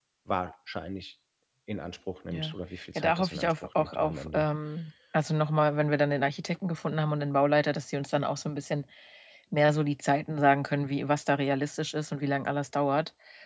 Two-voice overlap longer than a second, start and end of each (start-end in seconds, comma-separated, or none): 3.0-4.5